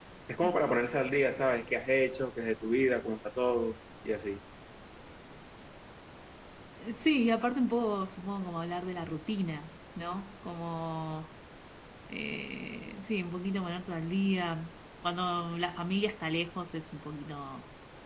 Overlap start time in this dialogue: none

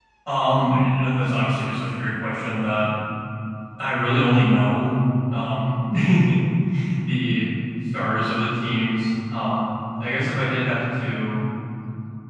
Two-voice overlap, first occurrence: none

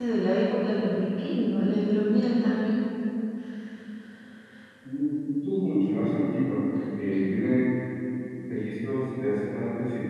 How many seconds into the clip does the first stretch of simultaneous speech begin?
none

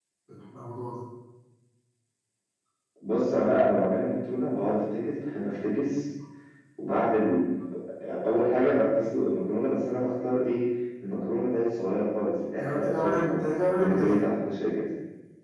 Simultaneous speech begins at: 12.5 s

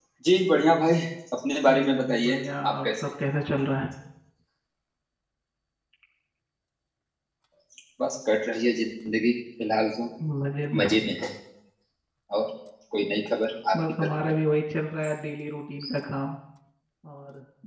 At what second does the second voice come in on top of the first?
1.7 s

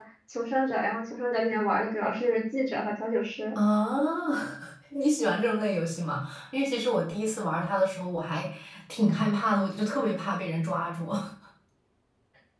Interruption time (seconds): none

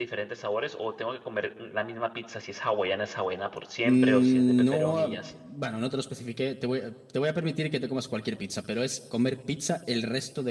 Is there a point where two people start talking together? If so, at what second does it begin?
3.8 s

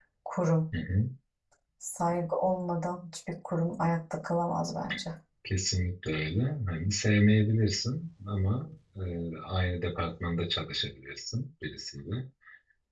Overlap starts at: none

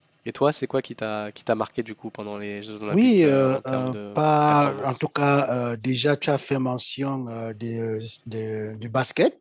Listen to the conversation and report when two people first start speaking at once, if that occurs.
2.9 s

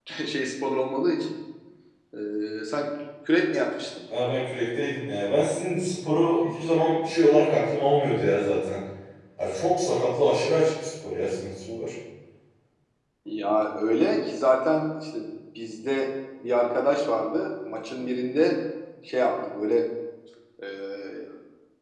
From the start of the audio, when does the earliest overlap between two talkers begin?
none

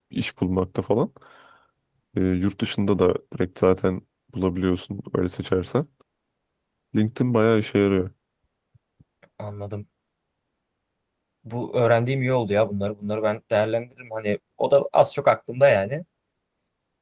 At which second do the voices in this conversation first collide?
none

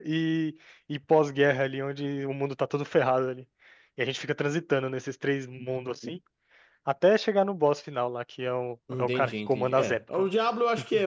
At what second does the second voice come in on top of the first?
8.9 s

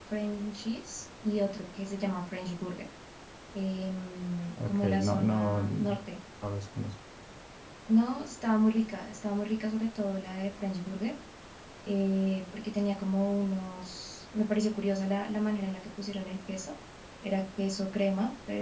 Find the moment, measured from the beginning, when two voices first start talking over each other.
4.6 s

